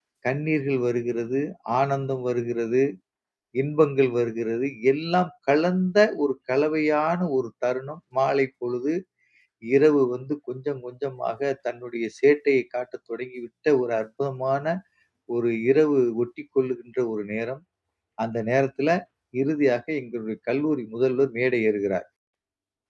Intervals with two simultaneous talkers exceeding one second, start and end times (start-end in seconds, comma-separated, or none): none